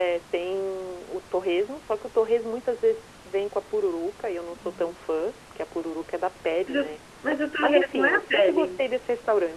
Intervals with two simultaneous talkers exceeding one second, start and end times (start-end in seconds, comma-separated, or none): 7.6-8.8